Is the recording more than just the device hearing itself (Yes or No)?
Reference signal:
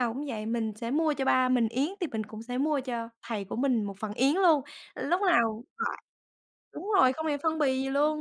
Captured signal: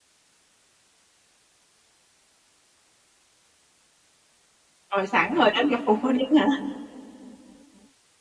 Yes